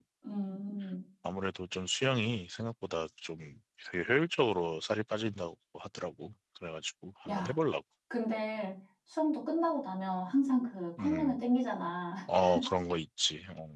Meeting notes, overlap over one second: none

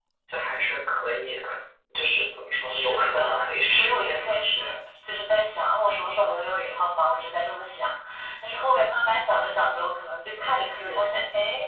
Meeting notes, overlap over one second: present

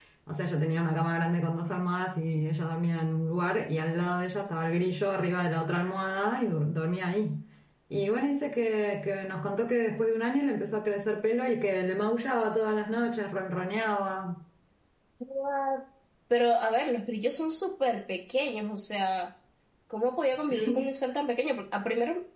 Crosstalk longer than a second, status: none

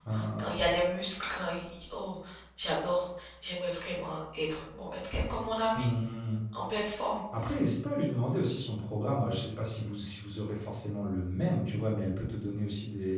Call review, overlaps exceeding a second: none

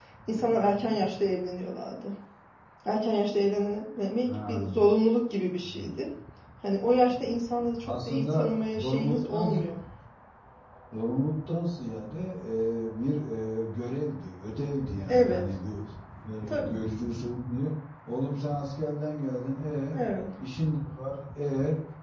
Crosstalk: present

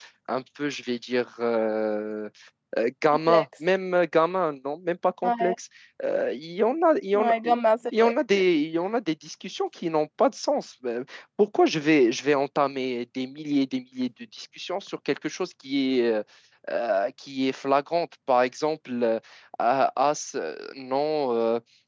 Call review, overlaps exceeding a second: none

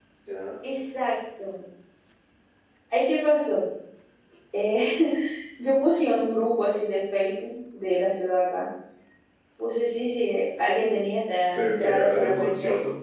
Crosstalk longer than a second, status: present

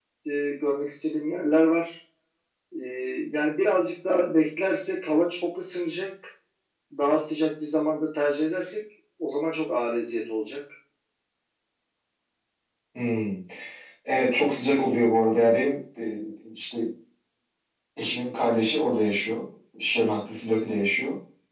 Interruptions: none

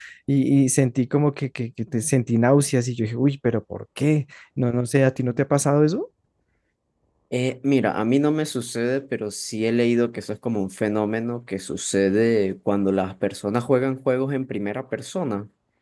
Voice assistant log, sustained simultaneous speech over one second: none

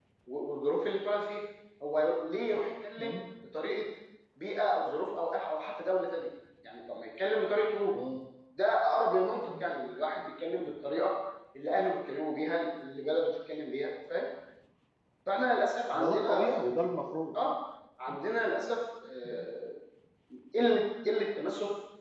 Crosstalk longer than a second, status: none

